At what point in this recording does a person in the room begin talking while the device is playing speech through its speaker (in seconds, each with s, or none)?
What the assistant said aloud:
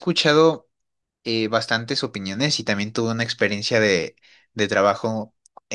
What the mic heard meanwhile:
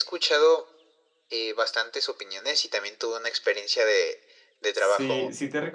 4.7 s